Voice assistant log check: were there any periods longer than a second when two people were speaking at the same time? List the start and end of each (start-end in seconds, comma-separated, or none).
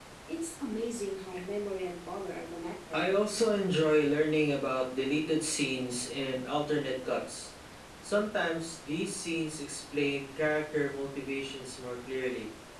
none